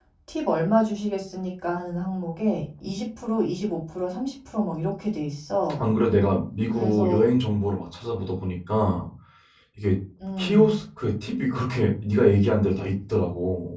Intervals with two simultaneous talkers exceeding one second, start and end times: none

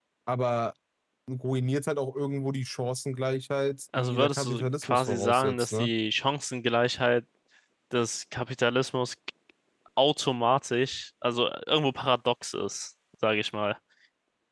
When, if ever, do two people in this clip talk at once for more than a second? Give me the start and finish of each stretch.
4.0-5.9

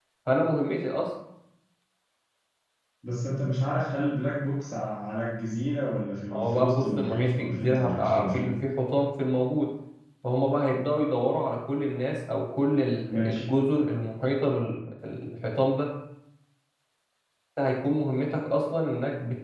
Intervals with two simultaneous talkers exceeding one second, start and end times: 6.3-8.5

